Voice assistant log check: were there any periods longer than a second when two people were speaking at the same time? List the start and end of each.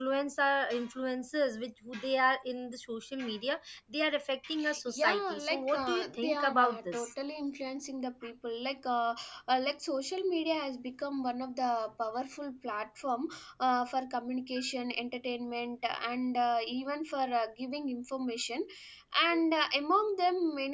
4.9-7.1

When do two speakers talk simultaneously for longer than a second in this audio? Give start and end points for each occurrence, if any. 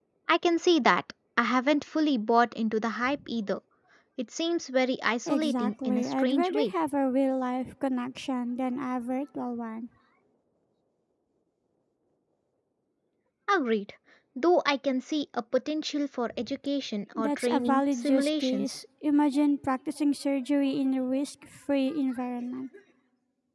5.3-6.7, 17.1-18.8

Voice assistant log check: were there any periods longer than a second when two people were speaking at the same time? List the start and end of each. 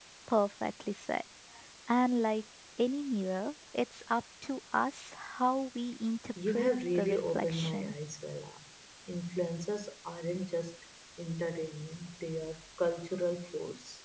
6.5-7.9

